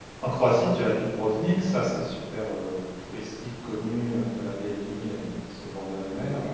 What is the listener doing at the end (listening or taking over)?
listening